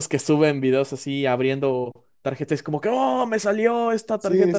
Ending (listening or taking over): taking over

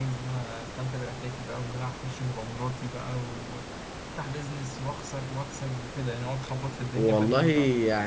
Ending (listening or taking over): taking over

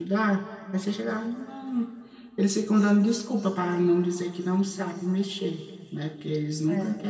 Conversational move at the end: listening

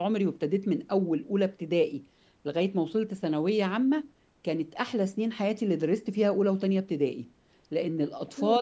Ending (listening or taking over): listening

